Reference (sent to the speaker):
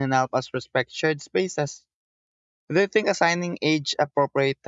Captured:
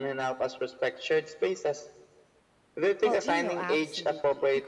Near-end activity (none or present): present